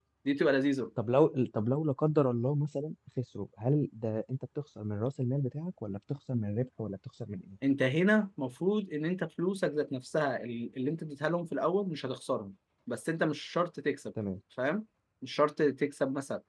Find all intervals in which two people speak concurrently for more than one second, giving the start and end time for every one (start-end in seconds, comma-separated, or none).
none